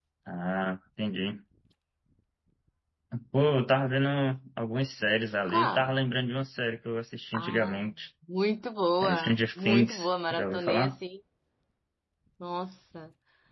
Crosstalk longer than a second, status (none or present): present